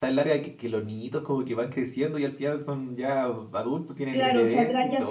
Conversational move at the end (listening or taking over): taking over